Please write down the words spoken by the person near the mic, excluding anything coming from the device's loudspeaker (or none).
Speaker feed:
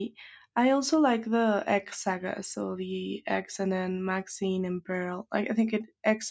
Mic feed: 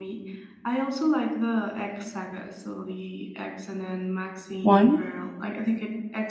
one.